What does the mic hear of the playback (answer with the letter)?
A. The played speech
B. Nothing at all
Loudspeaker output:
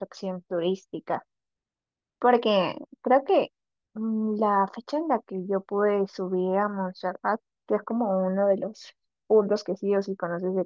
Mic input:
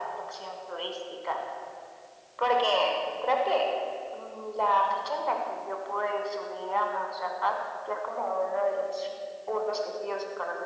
A